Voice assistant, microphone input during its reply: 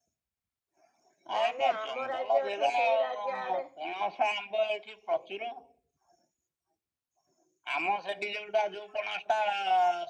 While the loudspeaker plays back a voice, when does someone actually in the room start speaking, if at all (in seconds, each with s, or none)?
1.4 s